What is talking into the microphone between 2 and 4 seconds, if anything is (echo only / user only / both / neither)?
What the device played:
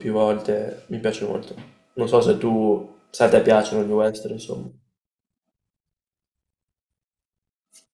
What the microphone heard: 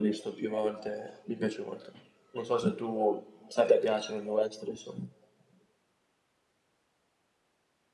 echo only